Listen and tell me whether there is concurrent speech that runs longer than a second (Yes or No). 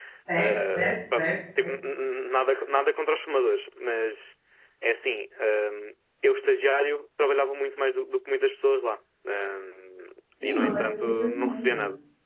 Yes